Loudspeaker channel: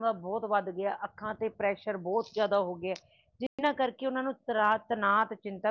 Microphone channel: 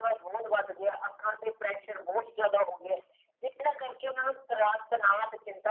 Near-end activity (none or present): none